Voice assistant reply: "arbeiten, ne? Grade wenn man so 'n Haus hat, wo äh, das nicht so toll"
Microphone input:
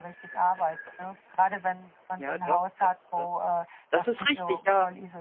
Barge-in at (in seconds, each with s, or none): 2.2 s